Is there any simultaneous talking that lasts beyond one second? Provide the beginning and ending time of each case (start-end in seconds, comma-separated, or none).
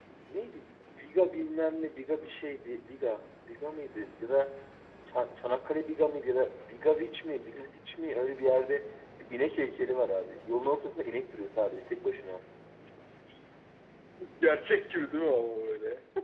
none